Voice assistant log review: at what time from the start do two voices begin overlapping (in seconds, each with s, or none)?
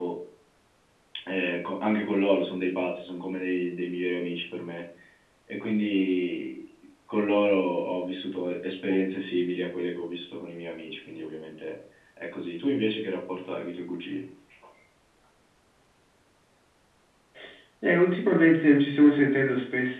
none